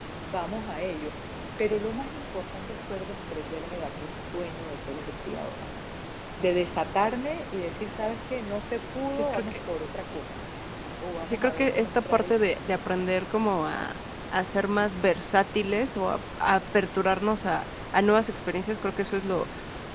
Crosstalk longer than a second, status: present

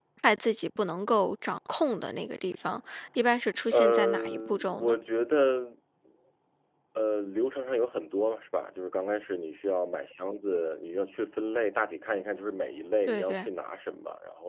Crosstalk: present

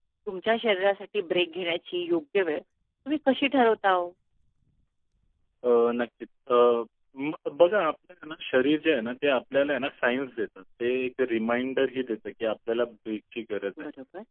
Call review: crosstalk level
none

